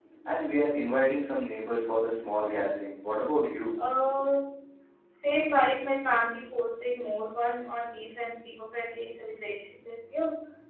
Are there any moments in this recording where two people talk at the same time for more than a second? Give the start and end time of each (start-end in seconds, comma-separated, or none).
none